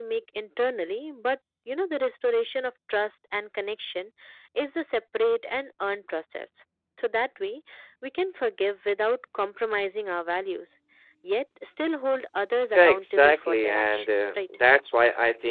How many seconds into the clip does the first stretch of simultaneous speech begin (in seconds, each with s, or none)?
12.7 s